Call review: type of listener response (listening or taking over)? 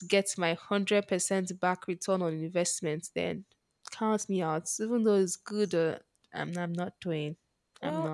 taking over